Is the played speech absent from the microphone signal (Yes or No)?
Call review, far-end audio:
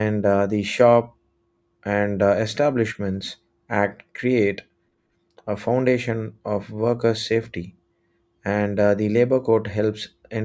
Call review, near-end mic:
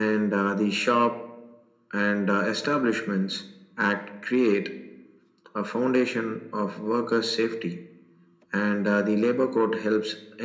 No